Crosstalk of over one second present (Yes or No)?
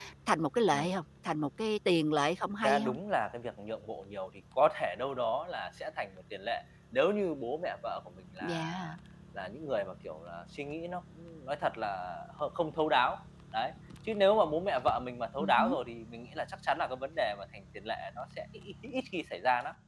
No